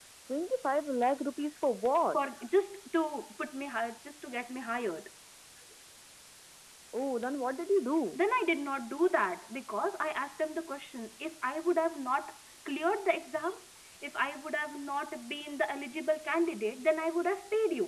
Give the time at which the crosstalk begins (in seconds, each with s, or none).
none